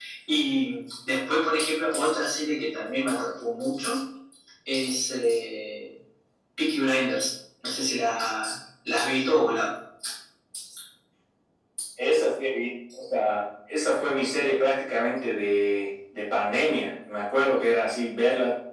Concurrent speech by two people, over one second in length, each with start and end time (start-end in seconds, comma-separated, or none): none